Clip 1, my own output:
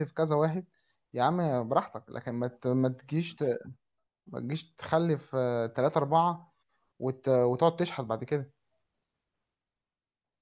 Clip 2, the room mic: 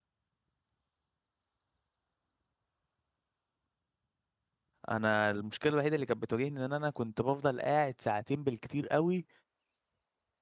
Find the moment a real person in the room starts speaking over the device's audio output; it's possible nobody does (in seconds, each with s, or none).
4.9 s